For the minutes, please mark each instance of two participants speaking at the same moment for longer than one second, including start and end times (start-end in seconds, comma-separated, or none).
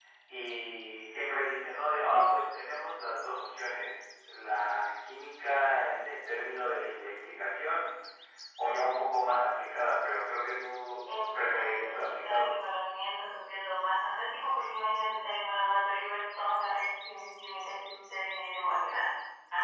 11.1-12.5